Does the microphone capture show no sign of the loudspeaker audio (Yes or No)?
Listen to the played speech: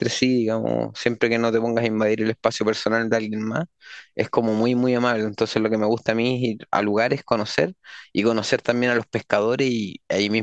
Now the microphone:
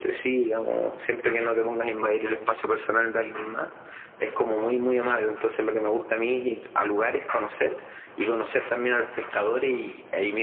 No